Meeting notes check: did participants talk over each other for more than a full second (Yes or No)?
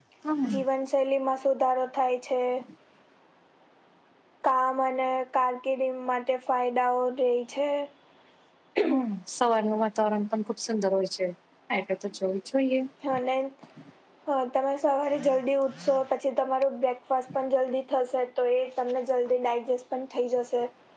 No